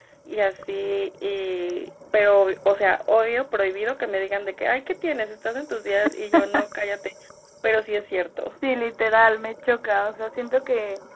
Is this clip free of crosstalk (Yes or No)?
Yes